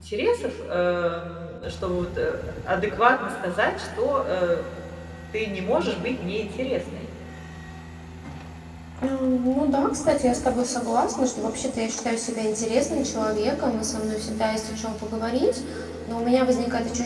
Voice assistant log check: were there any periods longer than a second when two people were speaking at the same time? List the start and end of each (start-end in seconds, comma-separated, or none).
none